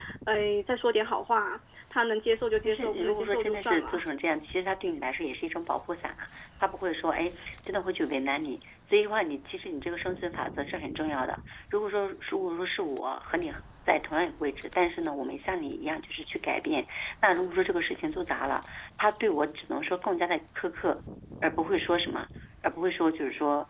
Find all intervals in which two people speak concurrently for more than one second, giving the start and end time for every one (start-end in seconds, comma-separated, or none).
2.6-4.0